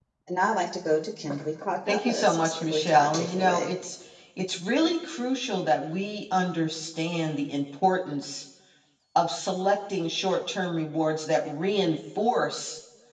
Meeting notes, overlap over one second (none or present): present